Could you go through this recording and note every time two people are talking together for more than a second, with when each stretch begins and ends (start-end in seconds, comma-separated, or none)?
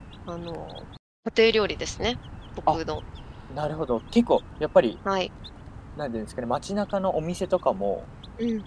none